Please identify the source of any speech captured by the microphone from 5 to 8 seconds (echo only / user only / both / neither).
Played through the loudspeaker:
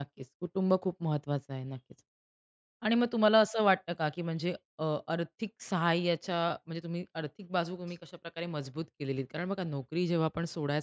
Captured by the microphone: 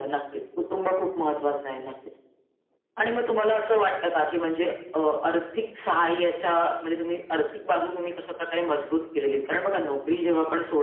echo only